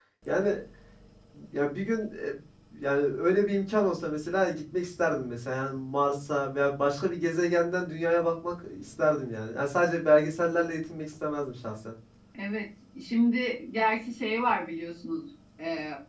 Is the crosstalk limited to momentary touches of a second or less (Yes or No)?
Yes